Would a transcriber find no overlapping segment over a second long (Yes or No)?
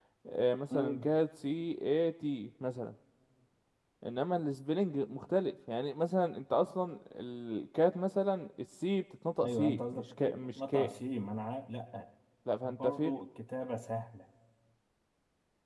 No